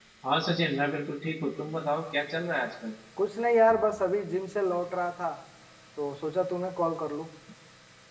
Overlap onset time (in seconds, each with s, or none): none